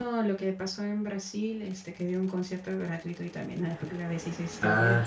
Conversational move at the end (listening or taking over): taking over